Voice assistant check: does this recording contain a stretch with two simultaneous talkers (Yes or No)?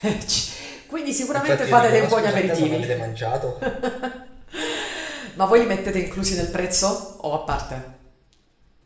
Yes